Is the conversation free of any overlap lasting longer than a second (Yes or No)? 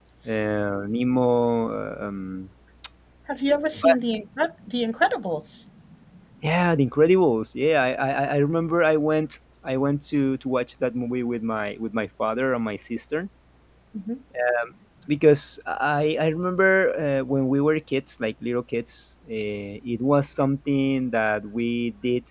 Yes